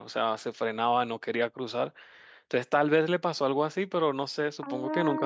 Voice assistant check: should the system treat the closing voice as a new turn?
Yes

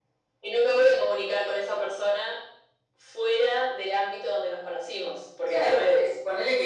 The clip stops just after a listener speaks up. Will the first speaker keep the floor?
No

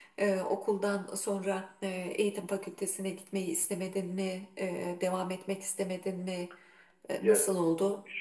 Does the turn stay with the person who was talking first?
No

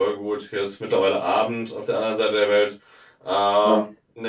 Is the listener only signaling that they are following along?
Yes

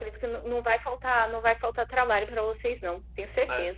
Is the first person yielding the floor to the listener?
Yes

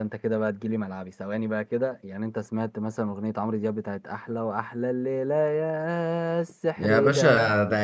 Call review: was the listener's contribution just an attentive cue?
No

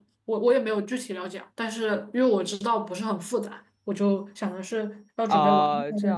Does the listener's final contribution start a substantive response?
Yes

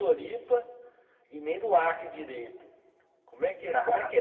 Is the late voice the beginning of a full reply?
No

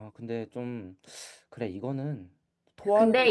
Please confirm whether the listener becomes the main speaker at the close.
Yes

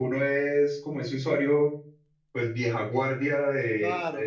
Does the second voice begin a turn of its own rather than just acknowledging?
Yes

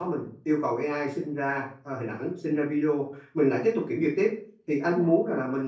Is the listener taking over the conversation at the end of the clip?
No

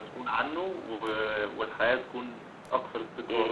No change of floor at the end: No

